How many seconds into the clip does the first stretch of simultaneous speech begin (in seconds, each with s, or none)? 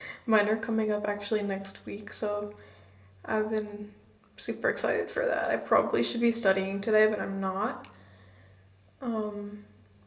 none